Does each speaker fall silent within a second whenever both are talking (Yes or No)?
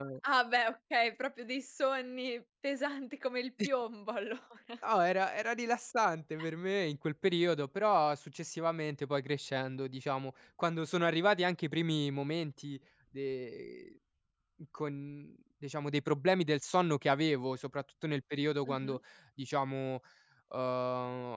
Yes